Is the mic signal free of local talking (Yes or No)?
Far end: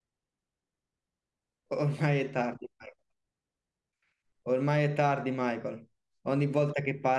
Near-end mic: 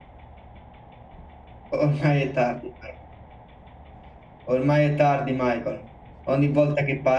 Yes